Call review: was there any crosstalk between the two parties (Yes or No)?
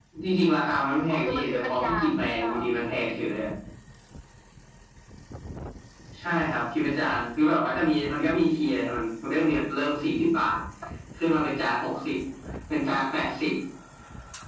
Yes